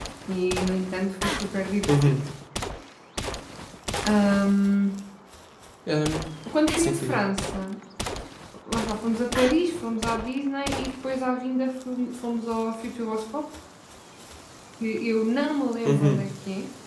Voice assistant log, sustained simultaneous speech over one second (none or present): none